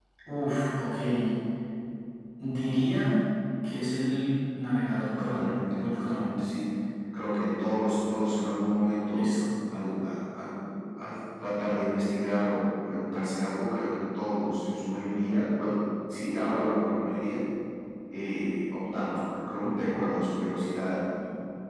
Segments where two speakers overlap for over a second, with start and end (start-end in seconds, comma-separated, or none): 5.2-6.4